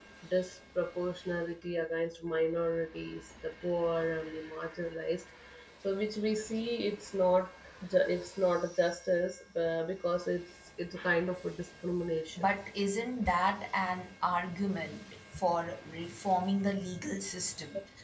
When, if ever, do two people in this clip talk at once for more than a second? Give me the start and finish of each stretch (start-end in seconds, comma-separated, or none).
none